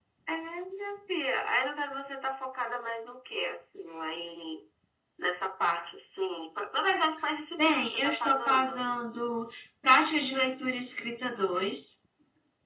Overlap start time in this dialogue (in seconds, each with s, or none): 7.6 s